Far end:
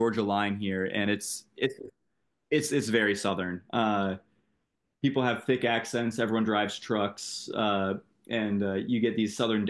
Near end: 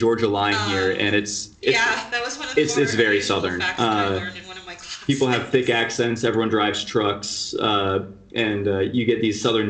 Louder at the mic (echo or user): echo